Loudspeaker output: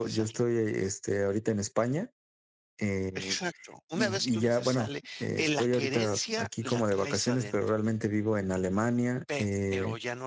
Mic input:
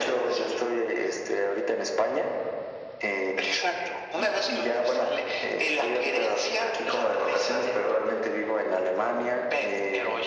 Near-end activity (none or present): none